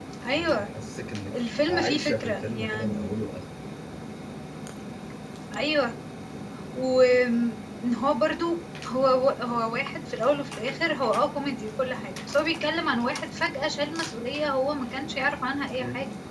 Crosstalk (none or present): present